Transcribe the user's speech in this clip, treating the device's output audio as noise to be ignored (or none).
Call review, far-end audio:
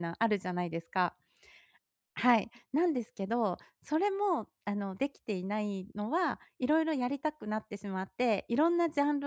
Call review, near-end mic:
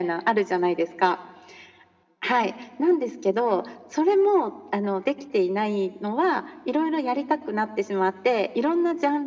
none